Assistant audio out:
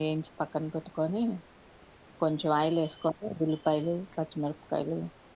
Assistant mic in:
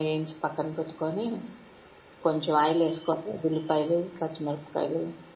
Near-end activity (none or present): none